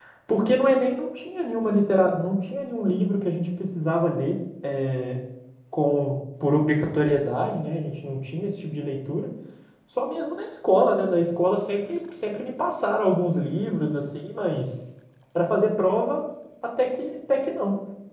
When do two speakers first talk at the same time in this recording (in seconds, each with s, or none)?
none